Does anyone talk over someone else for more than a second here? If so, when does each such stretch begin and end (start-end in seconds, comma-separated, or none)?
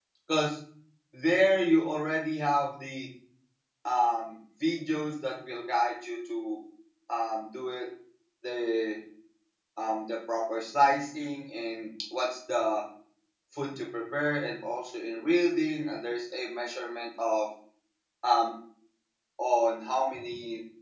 none